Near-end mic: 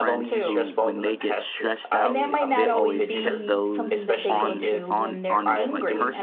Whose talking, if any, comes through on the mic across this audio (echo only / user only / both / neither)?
both